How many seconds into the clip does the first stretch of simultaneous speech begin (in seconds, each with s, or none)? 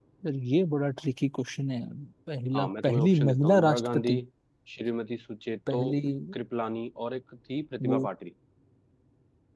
2.5 s